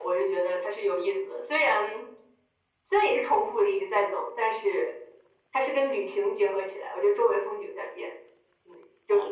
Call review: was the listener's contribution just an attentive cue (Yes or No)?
No